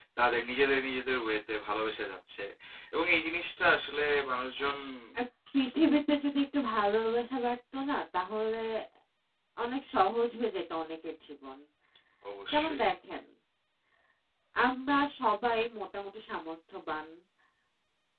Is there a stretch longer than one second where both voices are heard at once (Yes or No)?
No